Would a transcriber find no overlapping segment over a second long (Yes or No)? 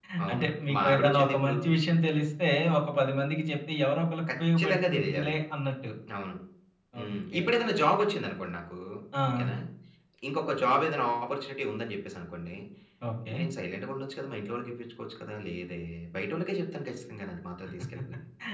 No